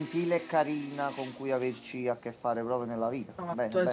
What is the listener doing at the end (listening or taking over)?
taking over